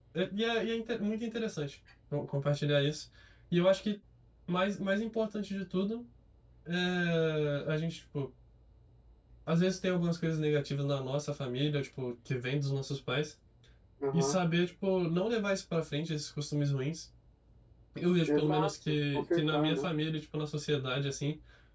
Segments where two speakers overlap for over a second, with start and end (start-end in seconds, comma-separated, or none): 18.3-19.9